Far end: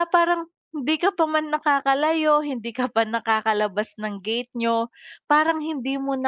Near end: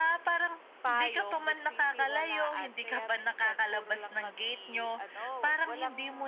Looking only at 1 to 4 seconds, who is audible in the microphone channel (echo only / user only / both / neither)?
both